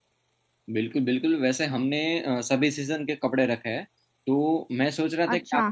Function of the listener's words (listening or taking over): listening